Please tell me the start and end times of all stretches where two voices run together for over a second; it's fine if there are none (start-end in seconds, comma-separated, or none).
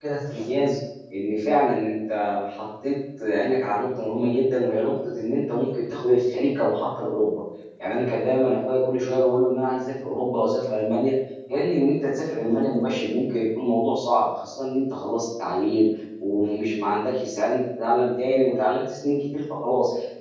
none